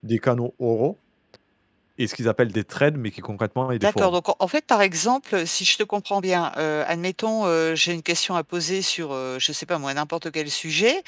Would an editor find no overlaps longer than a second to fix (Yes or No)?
Yes